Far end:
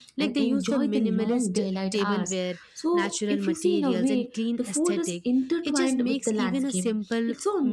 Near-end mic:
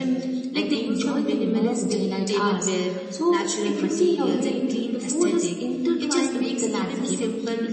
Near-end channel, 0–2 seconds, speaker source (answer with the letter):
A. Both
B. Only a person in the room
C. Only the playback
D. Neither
C